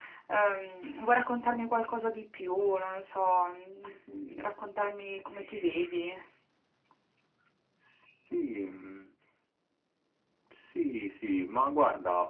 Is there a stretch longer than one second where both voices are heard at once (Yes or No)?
No